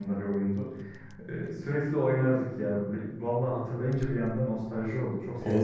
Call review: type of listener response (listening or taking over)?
taking over